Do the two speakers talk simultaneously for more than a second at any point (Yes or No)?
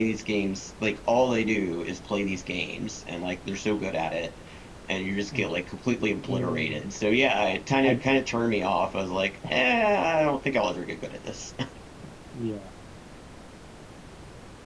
No